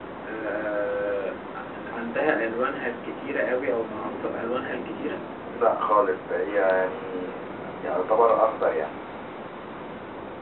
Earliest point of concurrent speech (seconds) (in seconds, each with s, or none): none